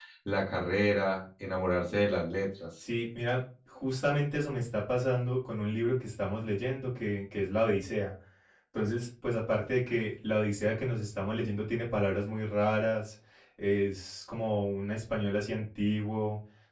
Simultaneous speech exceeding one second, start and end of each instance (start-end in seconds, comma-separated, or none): none